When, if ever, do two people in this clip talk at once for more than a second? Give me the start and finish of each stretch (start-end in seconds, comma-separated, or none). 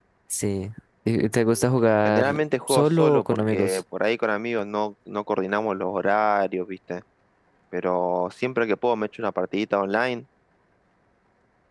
2.0-3.8